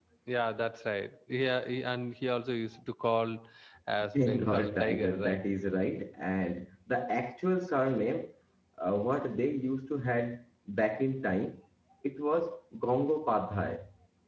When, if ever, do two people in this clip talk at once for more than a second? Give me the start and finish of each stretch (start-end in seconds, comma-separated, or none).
4.1-5.4